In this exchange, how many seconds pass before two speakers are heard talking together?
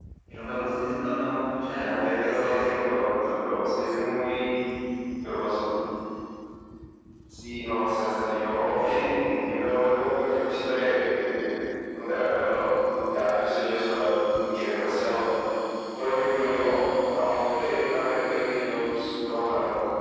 1.8 s

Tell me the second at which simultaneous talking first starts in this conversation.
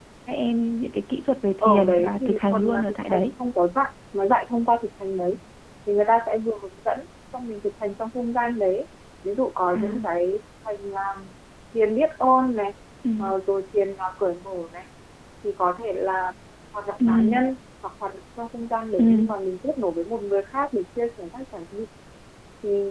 1.6 s

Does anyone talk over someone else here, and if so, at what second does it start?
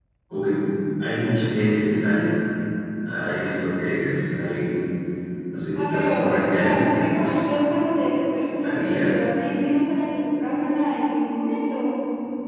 5.8 s

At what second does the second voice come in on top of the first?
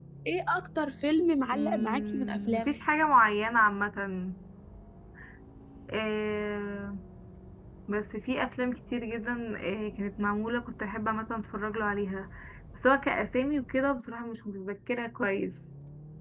1.5 s

